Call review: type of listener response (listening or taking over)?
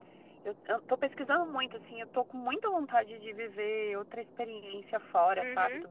listening